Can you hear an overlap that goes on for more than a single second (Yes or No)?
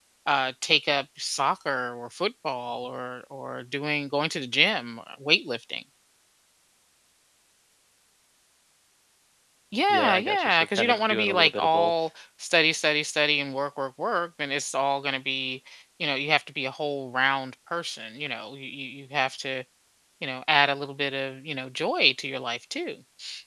Yes